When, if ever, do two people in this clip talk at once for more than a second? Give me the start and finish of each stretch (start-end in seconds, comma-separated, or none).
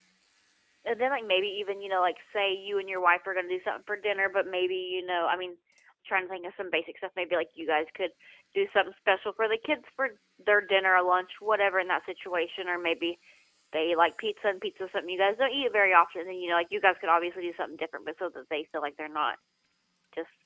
none